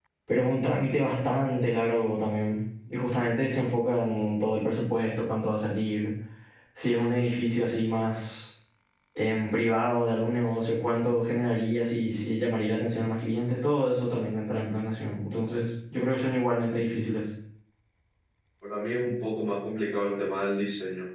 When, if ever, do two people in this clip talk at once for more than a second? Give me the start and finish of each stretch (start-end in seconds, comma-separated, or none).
none